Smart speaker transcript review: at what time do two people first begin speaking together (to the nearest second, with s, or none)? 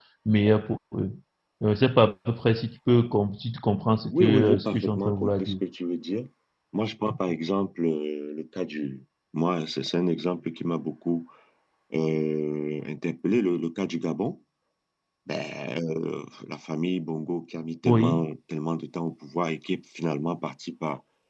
4 s